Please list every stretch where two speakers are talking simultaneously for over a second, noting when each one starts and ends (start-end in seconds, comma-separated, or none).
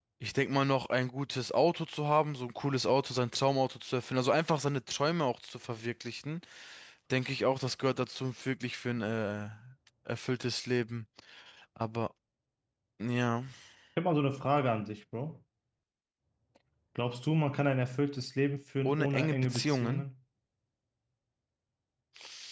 18.8-20.1